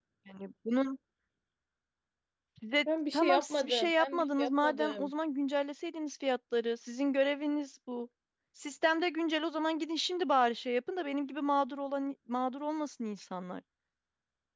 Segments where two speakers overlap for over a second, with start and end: 3.1-5.1

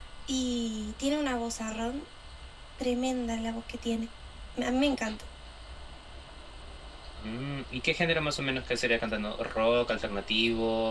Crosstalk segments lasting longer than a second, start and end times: none

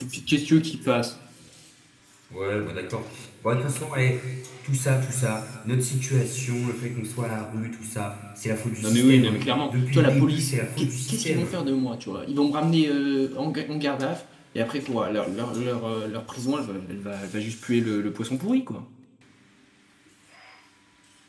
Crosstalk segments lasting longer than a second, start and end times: 8.8-11.6

